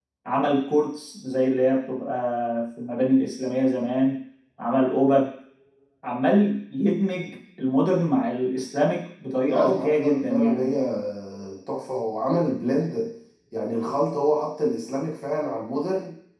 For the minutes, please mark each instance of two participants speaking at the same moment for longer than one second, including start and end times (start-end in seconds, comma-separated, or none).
9.5-10.7